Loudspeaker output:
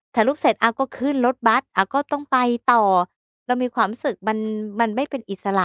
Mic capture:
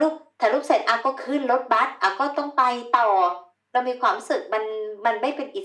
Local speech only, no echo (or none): none